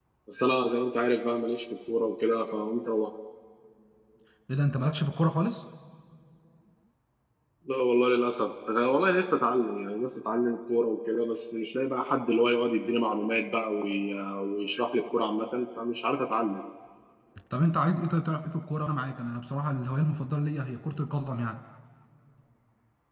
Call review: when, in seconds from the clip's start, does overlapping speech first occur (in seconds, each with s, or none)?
none